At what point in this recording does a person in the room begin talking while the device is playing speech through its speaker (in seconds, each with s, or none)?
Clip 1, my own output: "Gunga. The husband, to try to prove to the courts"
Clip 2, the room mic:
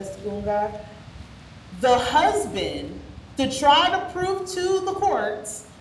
none